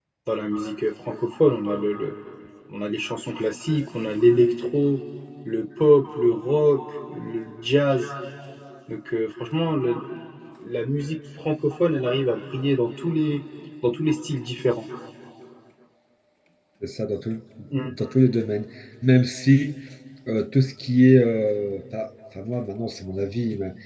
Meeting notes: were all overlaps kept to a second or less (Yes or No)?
Yes